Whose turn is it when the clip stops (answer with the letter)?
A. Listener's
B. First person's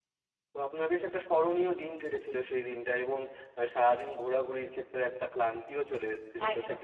B